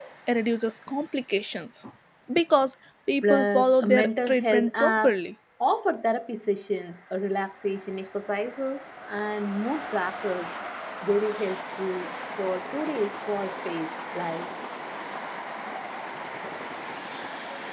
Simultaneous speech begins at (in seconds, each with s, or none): 3.2 s